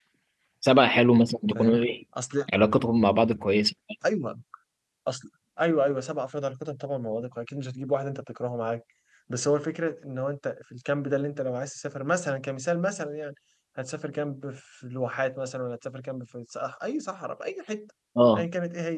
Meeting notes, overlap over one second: none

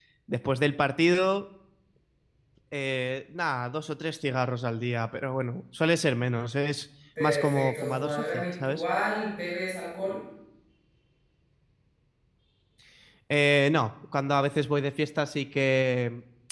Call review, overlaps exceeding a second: present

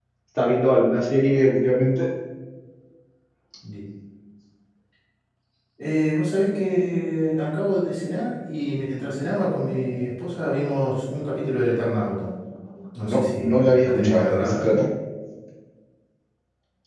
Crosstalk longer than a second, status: present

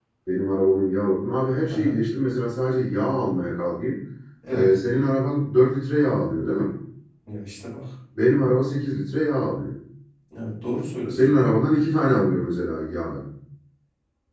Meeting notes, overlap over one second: none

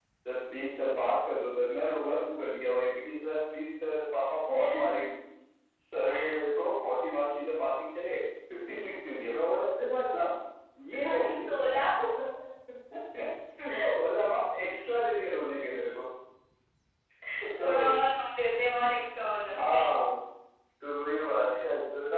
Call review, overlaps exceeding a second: none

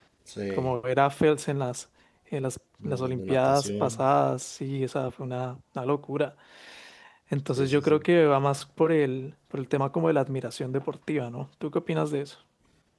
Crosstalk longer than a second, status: present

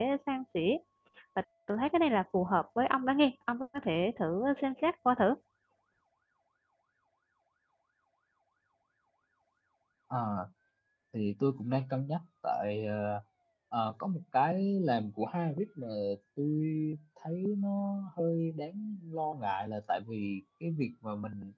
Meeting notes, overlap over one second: none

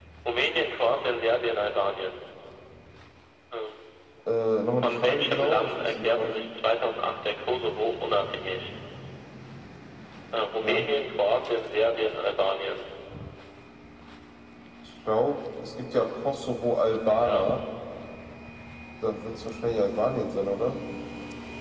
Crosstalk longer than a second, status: present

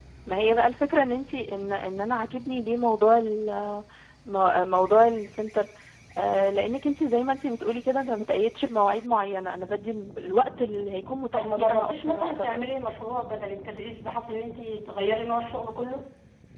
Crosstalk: present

